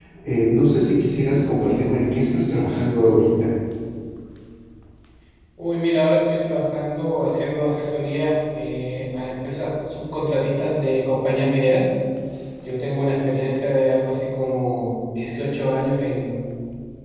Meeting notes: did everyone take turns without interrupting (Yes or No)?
Yes